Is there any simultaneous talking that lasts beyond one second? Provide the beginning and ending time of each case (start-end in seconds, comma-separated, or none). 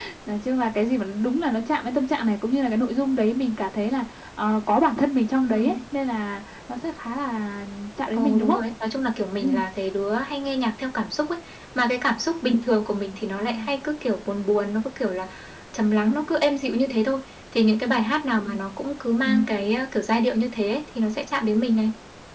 none